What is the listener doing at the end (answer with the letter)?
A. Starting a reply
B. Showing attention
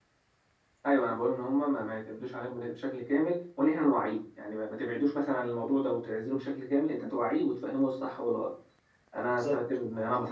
B